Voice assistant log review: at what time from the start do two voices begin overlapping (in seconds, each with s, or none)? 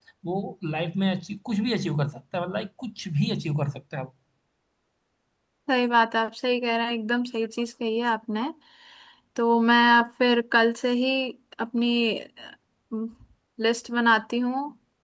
none